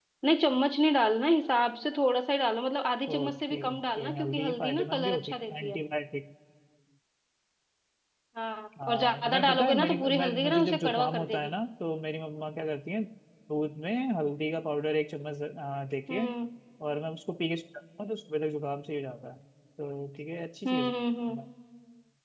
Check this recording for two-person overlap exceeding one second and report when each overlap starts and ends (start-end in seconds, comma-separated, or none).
3.1-5.8, 8.8-11.5